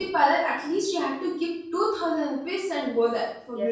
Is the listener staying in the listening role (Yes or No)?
No